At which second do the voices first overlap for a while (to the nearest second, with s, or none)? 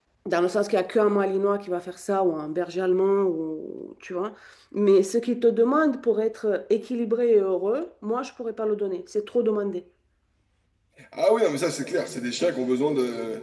none